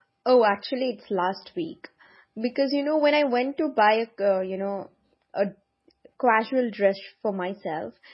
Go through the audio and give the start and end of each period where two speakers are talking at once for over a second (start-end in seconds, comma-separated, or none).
none